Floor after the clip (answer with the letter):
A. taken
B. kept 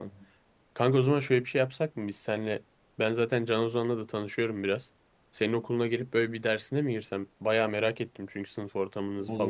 A